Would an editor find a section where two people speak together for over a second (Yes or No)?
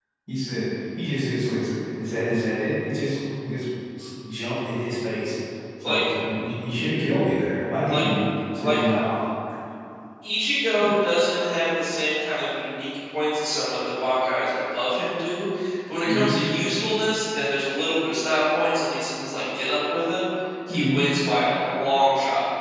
No